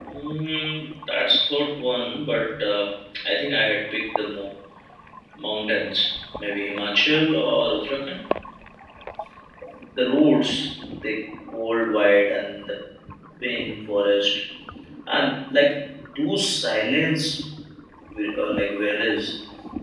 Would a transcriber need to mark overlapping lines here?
No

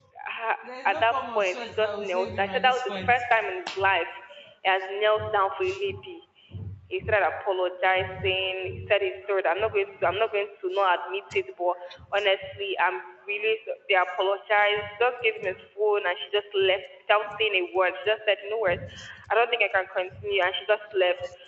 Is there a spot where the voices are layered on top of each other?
Yes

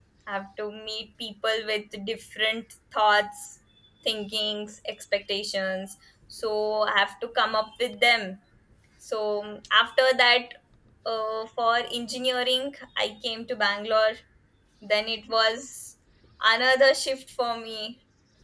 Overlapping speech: No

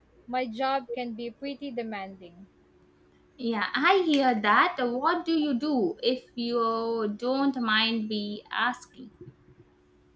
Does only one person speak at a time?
Yes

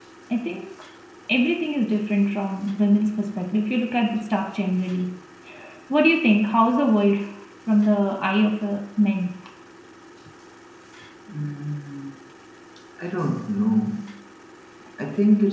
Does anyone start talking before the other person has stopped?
No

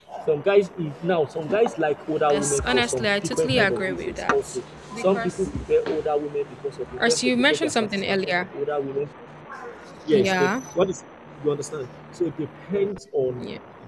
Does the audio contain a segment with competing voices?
Yes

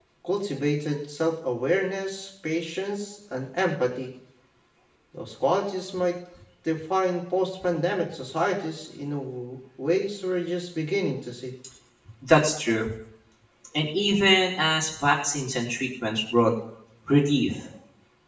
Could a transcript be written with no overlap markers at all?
Yes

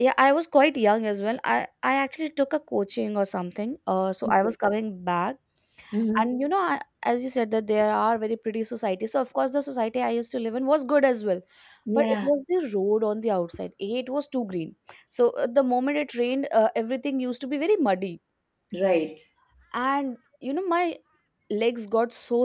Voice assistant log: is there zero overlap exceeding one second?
Yes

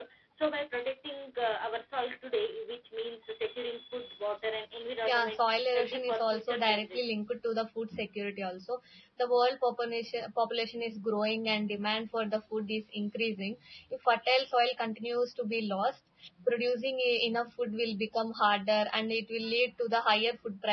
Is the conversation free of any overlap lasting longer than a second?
No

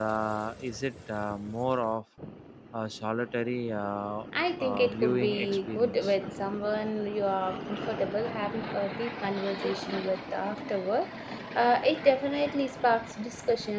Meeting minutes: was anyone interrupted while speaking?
Yes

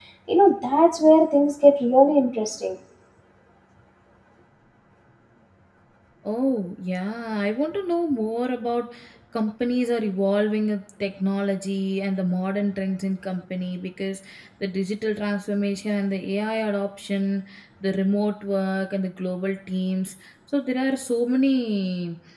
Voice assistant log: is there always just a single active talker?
Yes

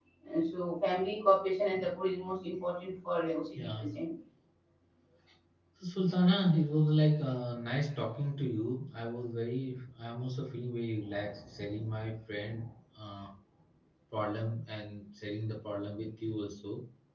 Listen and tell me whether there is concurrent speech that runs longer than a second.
No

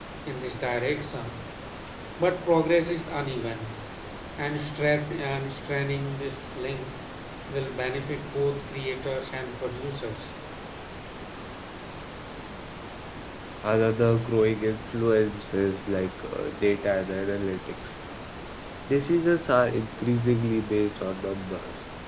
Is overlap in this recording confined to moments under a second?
Yes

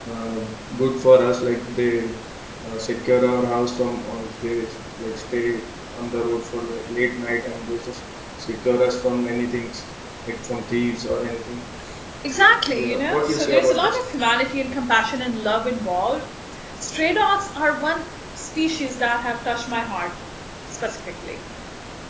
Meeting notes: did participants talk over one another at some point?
Yes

